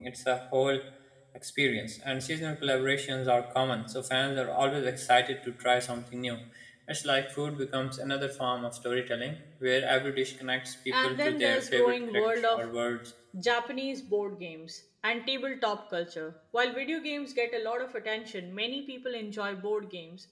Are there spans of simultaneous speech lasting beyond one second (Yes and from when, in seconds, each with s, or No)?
Yes, from 10.9 s